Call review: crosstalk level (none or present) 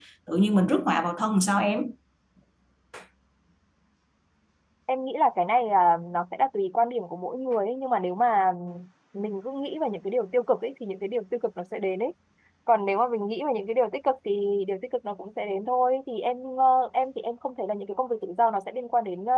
none